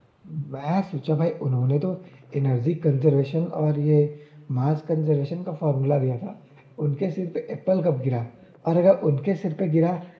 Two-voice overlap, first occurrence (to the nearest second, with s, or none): none